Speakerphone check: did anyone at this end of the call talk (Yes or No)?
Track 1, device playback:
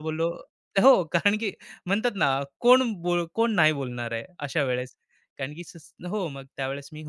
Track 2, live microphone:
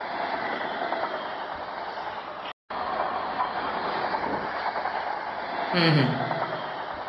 Yes